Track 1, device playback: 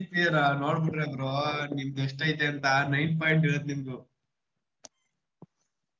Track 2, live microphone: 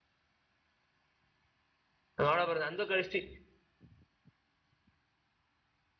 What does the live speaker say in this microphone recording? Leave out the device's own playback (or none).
ನೋಡ ಬರ ನಂದು ಕಳಸ್ತತಿ